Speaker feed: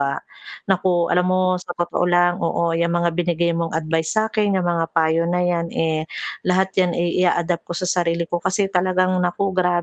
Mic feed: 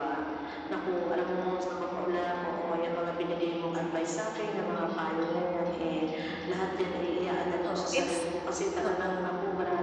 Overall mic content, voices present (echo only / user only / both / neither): both